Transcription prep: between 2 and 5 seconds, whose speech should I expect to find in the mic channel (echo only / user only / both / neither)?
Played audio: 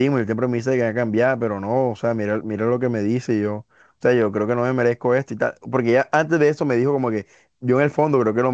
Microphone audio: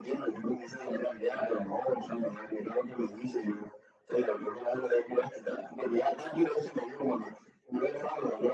echo only